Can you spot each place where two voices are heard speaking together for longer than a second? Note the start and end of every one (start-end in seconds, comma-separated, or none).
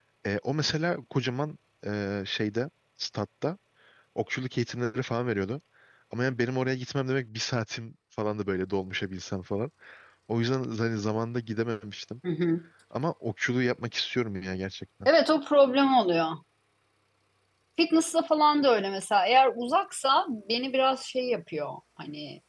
none